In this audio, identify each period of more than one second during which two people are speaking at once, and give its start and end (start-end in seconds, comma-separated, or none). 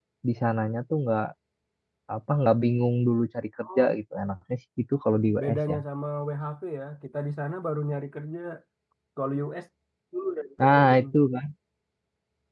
none